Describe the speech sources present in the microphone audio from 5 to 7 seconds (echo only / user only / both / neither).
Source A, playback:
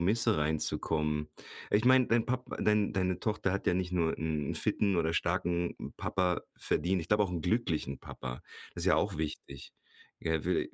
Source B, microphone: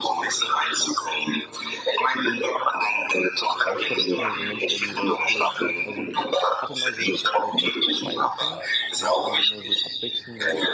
both